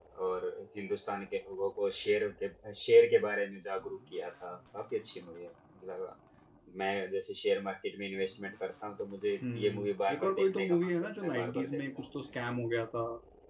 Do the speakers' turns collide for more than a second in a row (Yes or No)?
Yes